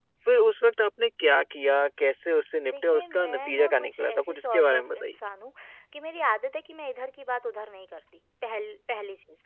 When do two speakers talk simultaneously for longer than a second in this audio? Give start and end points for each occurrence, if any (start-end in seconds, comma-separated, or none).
2.7-5.1